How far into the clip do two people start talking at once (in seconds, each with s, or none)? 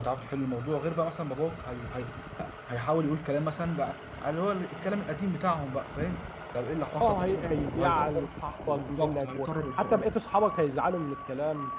6.9 s